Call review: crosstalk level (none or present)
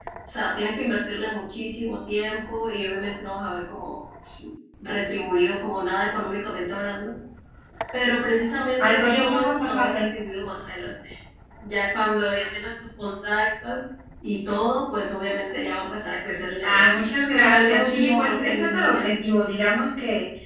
present